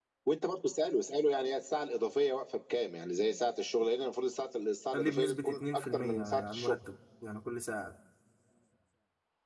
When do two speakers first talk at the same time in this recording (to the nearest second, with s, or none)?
5 s